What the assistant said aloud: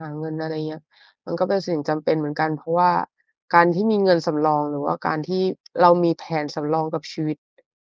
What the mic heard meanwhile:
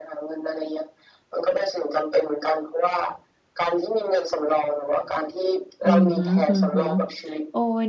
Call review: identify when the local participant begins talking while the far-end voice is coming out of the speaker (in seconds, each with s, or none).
5.8 s